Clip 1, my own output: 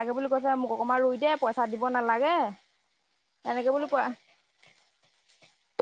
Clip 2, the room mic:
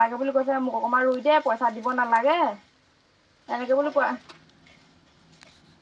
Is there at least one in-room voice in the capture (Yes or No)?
No